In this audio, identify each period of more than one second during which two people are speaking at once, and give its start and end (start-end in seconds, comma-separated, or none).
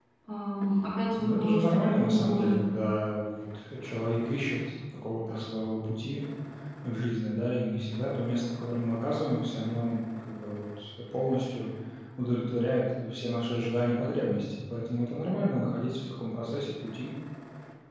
1.2-2.6